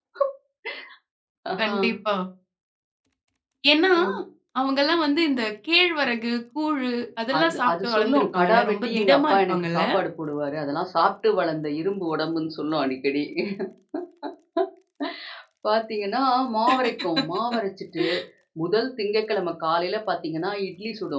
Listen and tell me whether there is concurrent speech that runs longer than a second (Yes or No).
Yes